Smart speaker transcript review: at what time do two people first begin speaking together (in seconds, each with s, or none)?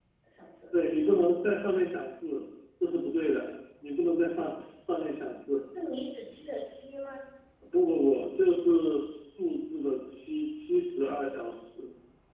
none